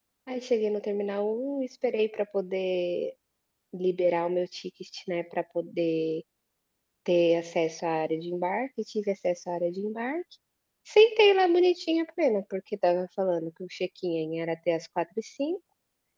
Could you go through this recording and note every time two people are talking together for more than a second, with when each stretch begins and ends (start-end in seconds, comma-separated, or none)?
none